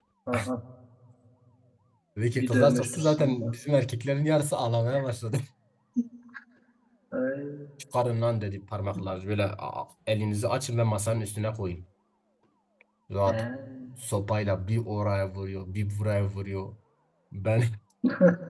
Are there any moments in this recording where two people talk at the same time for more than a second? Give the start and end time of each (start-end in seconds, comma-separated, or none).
2.3-3.6